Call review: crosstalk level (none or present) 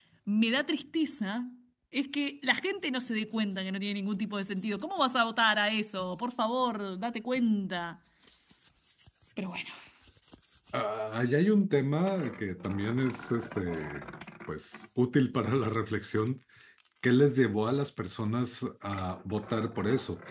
none